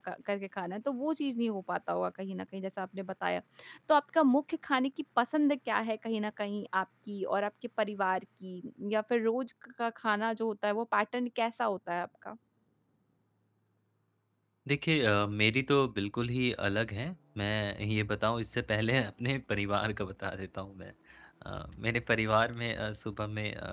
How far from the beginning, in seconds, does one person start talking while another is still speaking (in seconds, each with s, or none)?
none